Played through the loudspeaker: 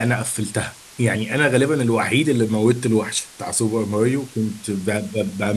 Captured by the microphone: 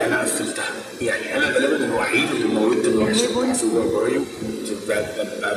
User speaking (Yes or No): Yes